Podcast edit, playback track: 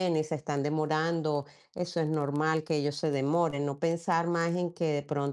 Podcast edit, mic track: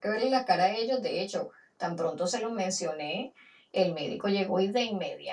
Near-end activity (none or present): present